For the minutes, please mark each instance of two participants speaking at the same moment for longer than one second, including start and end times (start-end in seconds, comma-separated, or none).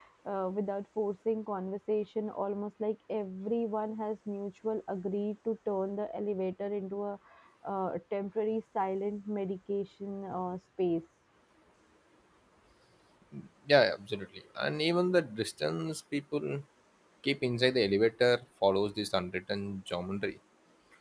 none